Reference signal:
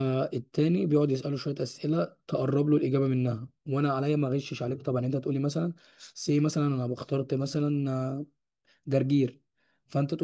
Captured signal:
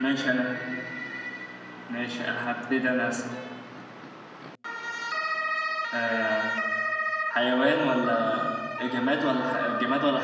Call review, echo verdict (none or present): none